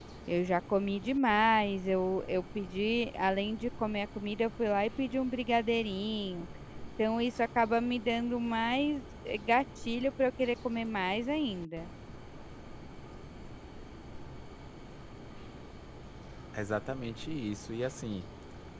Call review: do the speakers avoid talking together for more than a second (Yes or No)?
Yes